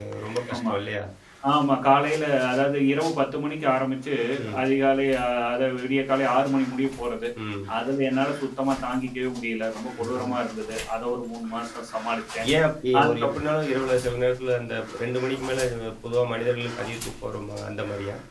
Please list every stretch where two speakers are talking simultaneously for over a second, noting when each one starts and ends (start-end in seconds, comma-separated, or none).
none